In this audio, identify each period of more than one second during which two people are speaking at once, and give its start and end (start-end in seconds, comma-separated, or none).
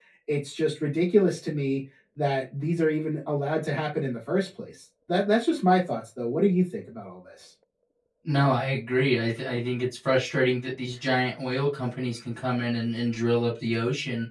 none